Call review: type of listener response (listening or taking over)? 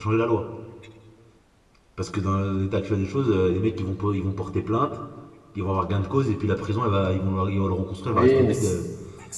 taking over